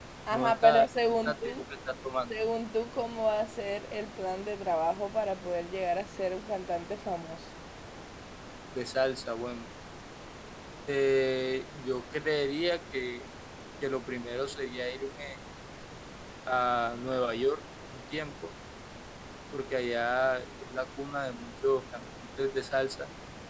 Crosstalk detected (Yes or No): Yes